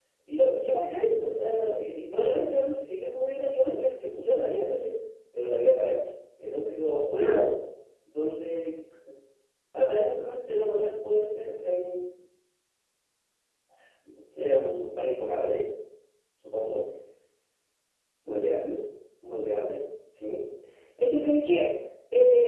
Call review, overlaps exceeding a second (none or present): none